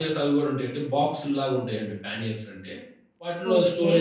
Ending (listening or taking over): listening